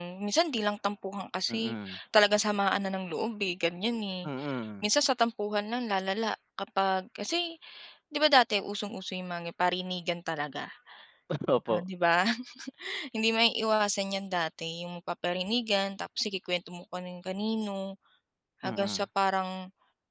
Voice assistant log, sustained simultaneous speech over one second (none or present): none